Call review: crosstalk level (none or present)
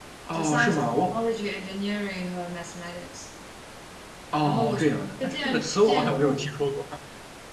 present